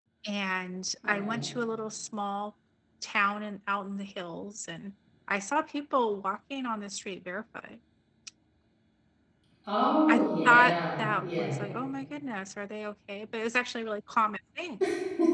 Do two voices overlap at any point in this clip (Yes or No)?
Yes